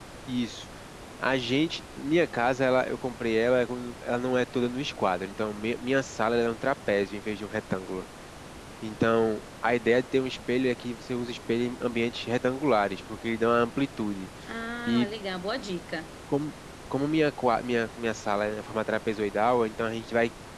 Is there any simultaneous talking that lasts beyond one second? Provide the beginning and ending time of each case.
none

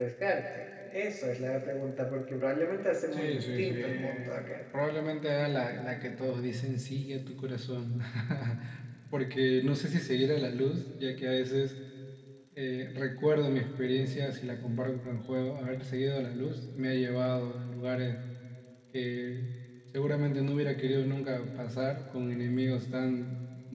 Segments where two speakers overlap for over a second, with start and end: 3.1-4.4

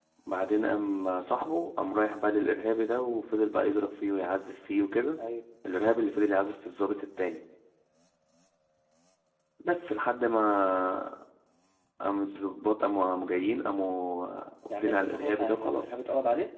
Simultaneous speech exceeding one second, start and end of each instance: 14.7-16.0

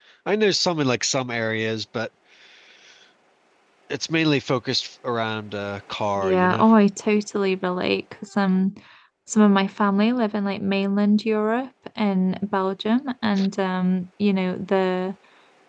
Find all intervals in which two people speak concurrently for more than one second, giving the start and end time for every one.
none

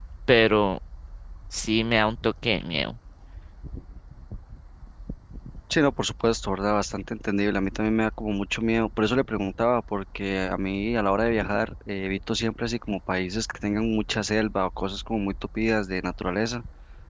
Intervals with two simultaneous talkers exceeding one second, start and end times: none

